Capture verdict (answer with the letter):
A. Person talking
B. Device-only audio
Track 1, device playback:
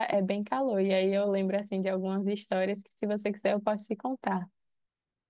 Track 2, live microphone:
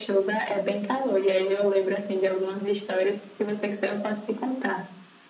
B